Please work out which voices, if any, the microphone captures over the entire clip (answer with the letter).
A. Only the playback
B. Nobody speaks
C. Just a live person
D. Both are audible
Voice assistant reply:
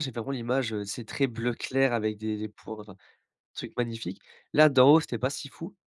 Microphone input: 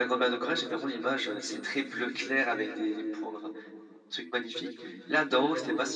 A